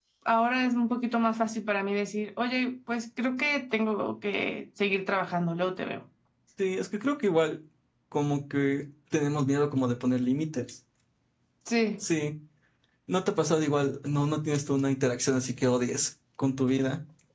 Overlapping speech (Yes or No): No